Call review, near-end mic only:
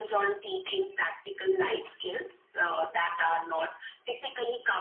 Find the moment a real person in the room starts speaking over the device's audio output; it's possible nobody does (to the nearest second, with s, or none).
none